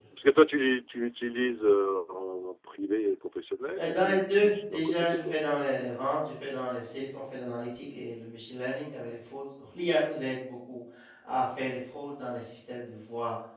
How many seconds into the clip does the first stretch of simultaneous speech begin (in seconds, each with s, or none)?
3.8 s